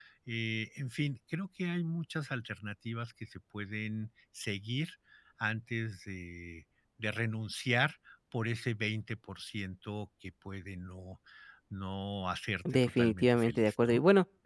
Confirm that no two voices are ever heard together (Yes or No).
No